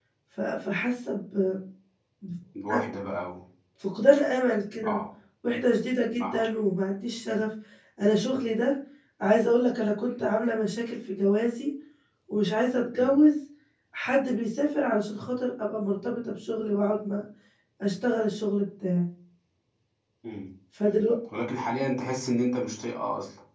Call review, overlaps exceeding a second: none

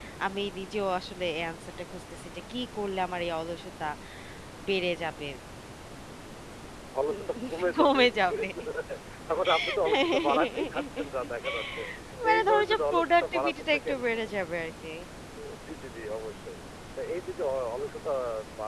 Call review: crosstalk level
present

